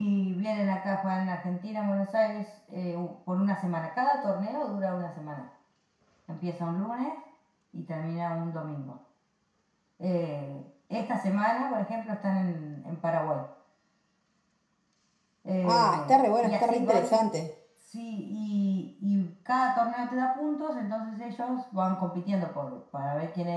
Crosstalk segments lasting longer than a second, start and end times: 15.6-17.2

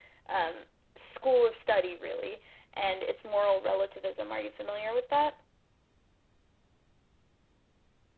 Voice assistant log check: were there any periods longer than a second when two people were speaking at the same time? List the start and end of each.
none

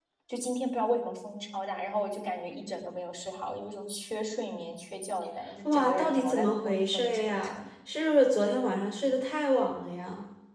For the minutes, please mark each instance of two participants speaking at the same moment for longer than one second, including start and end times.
5.7-7.5

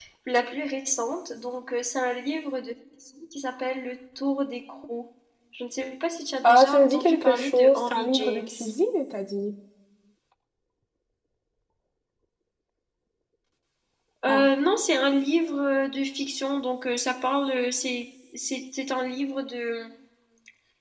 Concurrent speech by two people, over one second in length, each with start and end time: 6.4-8.5

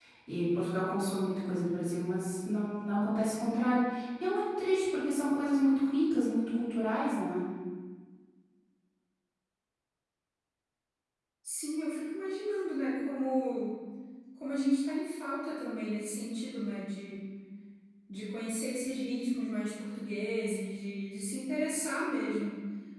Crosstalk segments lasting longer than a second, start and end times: none

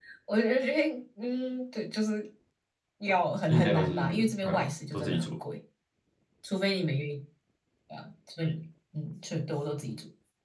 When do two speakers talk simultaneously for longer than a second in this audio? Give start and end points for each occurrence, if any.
3.5-5.4

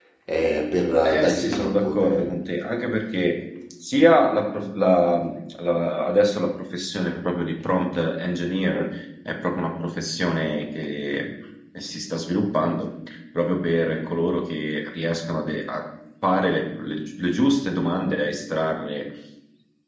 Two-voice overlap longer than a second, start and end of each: 1.0-2.2

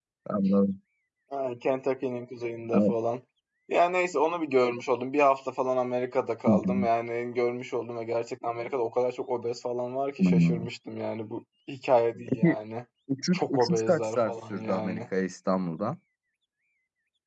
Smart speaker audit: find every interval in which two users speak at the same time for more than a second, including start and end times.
13.3-15.0

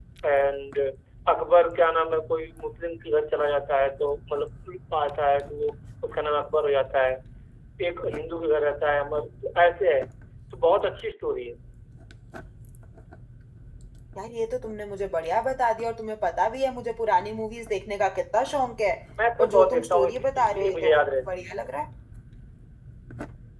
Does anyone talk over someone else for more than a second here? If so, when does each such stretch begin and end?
19.4-20.9

